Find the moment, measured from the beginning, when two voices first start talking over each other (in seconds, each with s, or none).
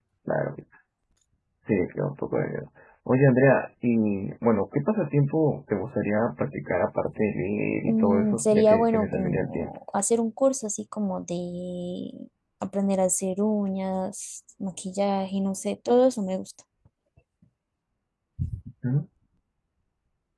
7.8 s